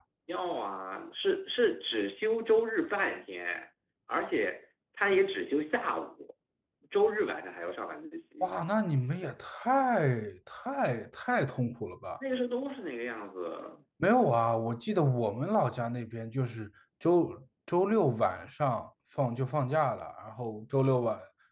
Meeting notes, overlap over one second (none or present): none